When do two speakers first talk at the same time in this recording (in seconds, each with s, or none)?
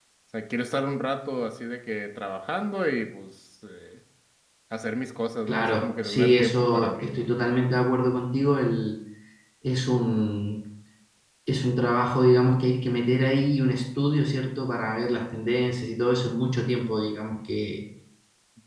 5.5 s